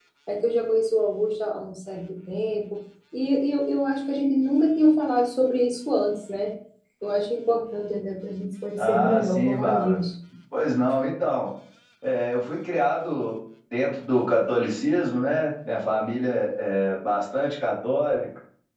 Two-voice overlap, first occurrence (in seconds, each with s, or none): 8.8 s